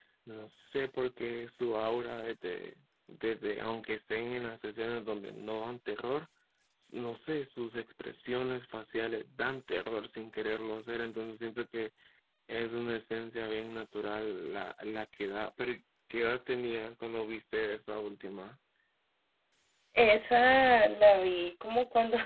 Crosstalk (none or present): none